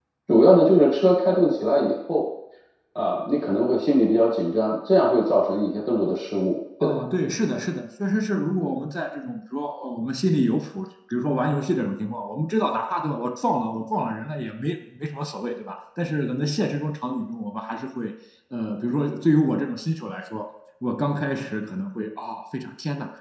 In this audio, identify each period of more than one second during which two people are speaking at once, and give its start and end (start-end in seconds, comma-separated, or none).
none